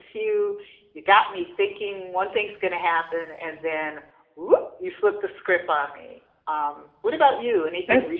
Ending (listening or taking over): taking over